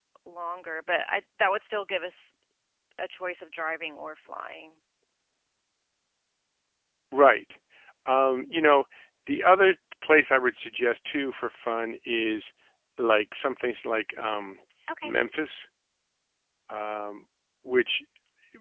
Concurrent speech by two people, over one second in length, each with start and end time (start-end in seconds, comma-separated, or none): none